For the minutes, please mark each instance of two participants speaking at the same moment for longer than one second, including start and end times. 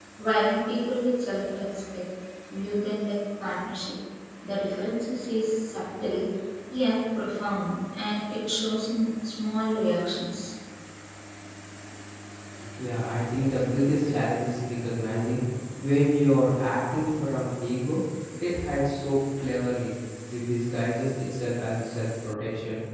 none

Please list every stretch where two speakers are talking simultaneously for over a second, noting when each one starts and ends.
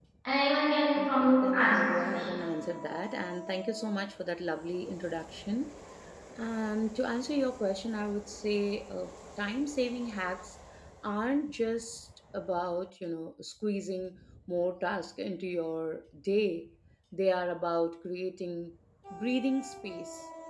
1.0-2.3

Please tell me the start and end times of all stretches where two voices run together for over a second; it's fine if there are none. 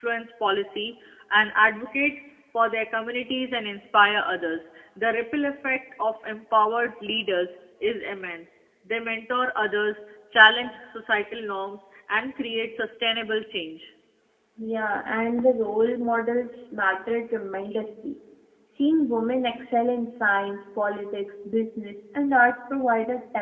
none

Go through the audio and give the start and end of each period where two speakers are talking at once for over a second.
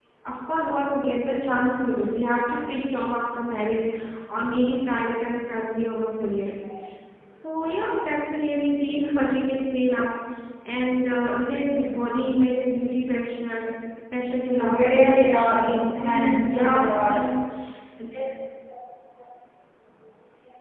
14.5-17.1

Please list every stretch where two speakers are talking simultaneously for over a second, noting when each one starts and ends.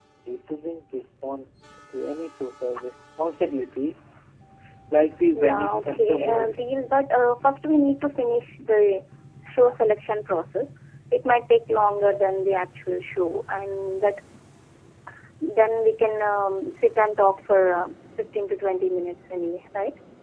5.3-6.6

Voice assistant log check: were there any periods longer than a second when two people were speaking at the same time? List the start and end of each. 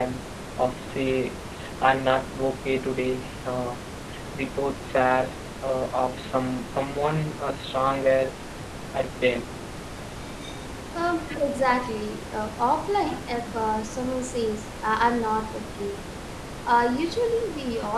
none

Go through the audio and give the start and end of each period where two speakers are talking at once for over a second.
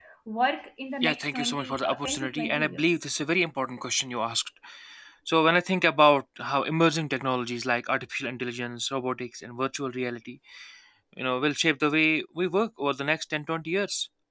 1.0-2.8

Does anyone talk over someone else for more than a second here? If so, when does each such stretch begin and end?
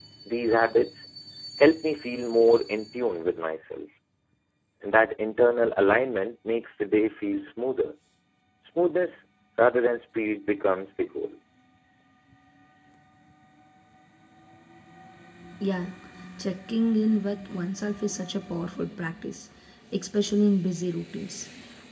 none

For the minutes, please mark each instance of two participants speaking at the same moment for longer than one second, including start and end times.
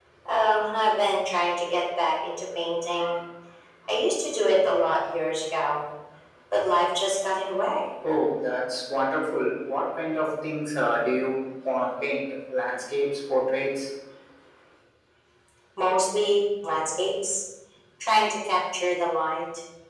none

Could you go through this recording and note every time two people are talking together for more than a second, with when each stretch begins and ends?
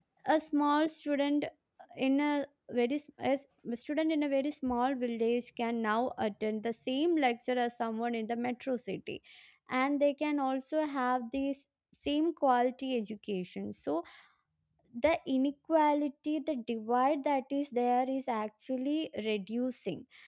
none

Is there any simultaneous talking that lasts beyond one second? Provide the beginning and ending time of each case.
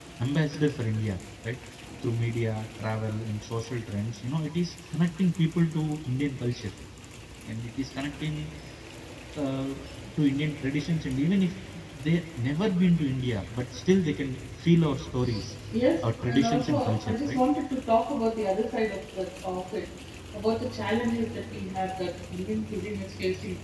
16.0-17.4

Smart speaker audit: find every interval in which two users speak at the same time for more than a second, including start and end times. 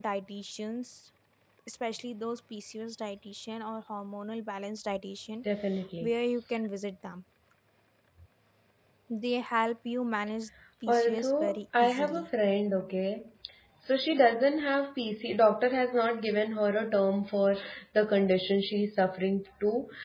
10.9-12.2

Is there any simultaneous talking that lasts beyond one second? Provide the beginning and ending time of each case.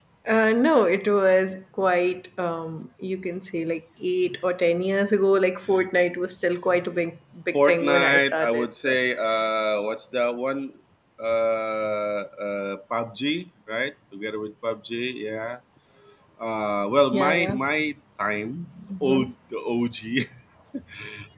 7.7-9.0

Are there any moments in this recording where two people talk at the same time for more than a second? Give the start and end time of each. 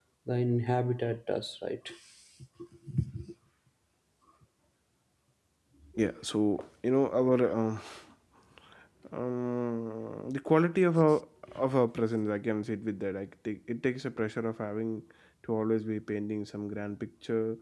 none

